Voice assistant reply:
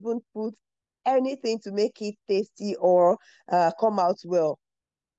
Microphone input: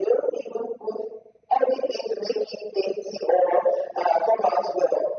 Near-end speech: none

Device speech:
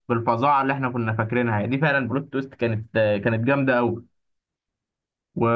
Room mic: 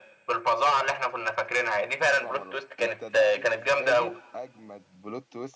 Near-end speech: present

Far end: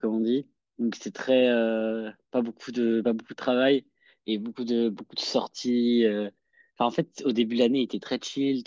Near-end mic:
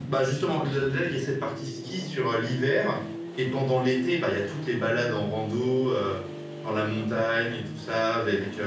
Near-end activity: present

